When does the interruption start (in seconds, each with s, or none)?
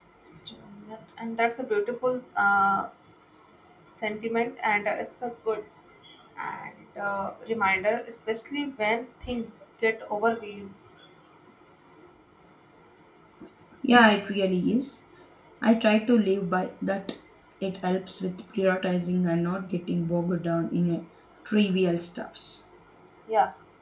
none